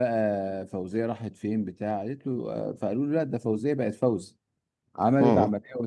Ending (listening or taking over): listening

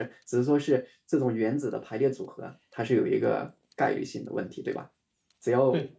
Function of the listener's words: listening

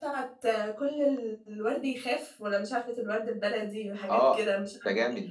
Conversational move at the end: taking over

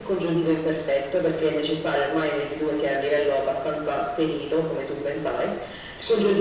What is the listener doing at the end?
listening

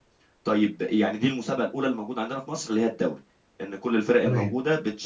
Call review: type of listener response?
listening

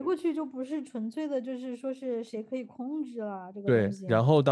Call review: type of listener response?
taking over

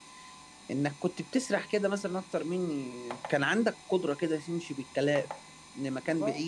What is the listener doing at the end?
listening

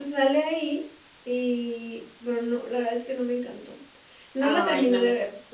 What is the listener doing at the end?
listening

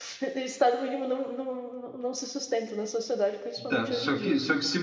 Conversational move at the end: taking over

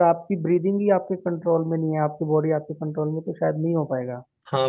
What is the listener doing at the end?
taking over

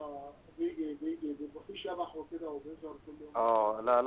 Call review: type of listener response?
taking over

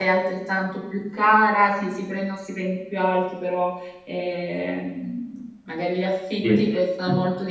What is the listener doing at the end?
listening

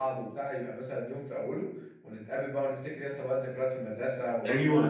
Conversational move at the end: taking over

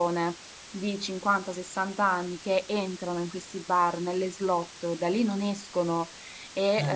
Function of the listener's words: listening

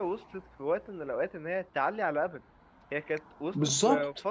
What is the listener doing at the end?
listening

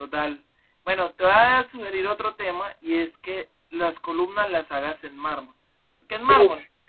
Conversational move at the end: listening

